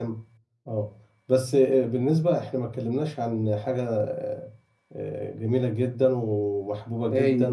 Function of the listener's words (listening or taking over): listening